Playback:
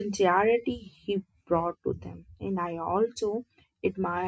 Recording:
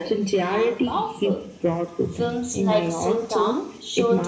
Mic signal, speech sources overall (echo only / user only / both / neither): both